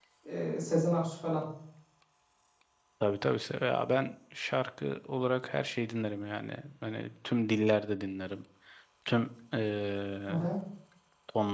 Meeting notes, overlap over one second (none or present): none